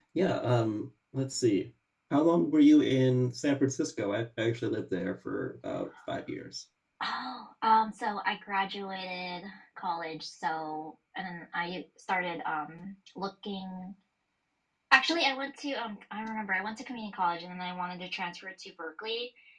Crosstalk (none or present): none